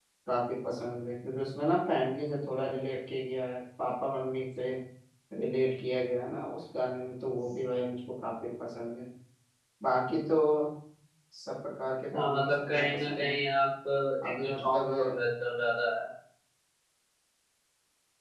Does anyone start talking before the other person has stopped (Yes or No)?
Yes